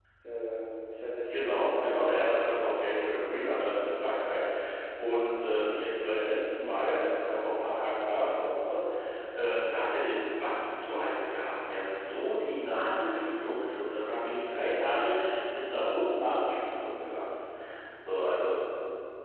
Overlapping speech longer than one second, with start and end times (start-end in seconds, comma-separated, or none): 1.3-2.7